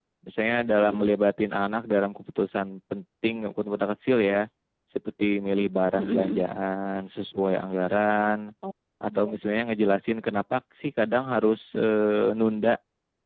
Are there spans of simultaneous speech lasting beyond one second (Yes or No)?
No